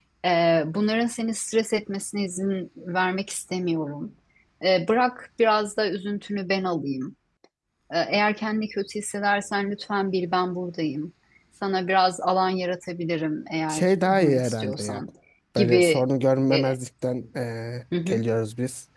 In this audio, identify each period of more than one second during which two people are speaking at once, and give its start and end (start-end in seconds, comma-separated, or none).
13.7-15.0